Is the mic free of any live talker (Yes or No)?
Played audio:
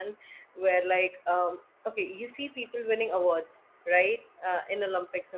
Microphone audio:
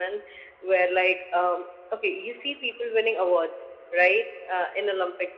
Yes